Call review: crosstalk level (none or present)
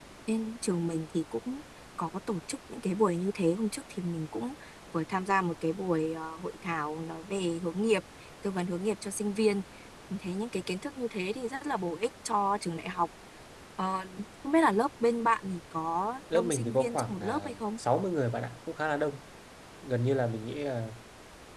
present